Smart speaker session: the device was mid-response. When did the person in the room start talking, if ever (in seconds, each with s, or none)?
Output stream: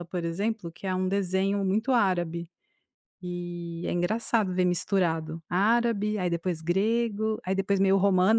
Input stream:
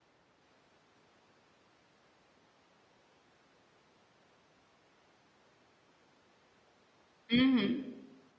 7.3 s